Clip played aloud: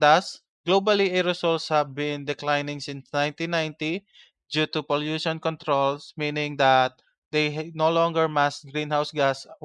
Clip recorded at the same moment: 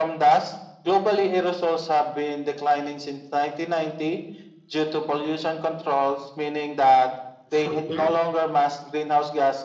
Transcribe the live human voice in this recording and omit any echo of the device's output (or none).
So yeah.